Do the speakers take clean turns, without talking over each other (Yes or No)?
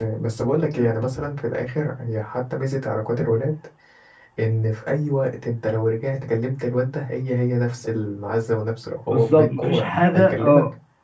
No